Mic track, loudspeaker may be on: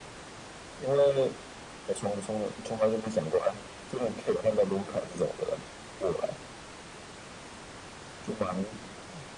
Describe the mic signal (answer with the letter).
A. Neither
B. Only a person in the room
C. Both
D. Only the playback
D